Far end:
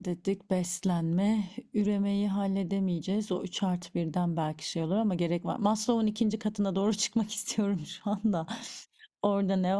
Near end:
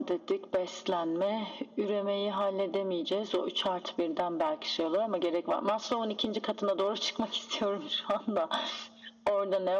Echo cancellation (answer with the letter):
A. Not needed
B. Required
B